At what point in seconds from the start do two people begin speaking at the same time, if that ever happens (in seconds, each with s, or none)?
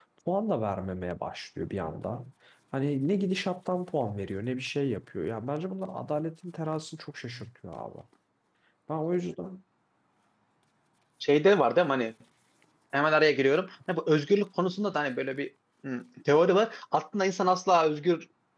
none